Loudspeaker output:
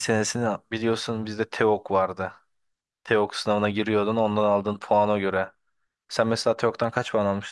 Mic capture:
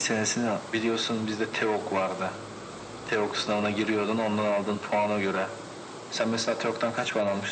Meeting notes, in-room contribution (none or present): none